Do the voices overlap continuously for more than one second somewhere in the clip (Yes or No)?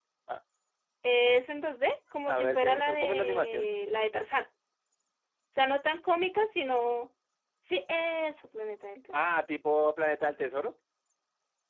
Yes